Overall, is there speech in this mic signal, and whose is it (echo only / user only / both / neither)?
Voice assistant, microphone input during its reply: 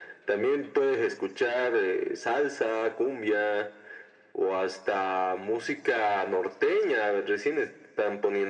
echo only